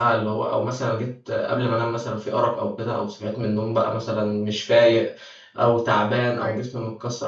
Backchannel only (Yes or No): Yes